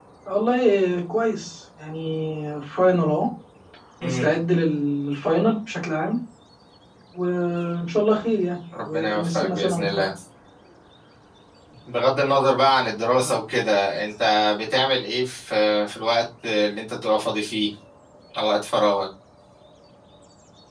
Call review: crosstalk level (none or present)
present